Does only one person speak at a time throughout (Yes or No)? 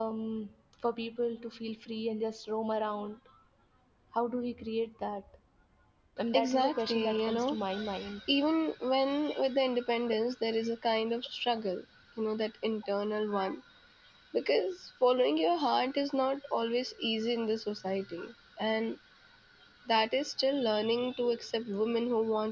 No